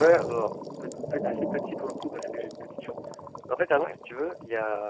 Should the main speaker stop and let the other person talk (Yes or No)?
No